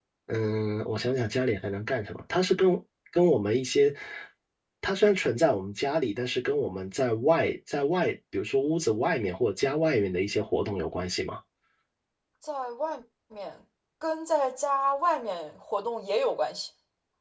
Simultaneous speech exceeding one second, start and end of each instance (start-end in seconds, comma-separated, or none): none